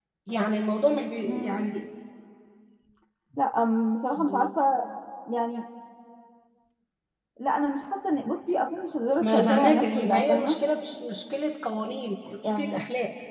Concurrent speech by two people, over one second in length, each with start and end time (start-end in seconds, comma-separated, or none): 9.2-10.6